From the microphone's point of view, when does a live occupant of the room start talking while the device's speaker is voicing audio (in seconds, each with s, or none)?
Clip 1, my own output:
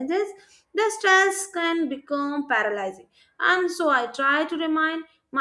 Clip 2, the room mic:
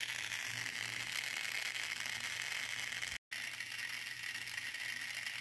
none